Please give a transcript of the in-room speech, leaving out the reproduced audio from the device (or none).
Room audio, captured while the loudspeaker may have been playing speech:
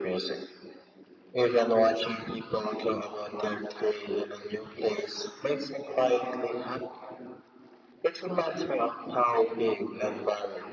none